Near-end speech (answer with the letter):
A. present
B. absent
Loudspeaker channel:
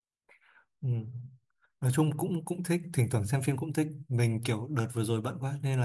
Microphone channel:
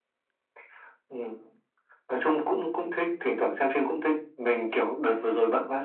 B